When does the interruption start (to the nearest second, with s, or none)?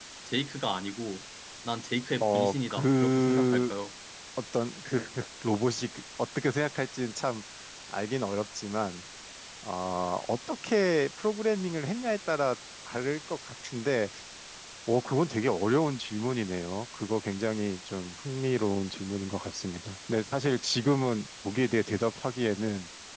2 s